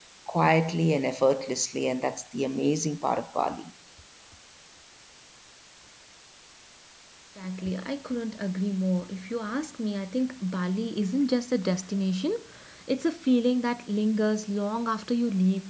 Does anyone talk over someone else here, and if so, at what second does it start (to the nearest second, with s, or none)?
none